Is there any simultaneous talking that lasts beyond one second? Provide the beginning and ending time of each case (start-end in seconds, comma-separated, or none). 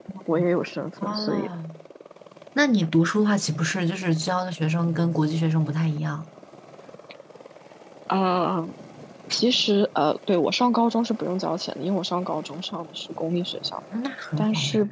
none